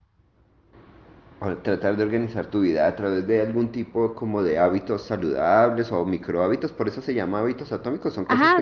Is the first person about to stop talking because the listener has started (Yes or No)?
Yes